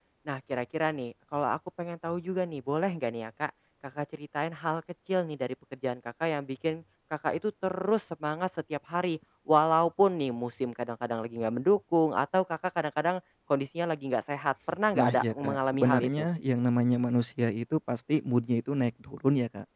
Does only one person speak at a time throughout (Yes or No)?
No